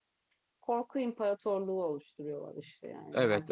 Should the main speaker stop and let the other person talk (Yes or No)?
Yes